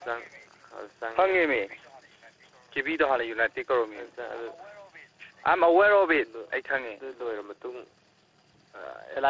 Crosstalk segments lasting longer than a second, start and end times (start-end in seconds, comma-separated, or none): none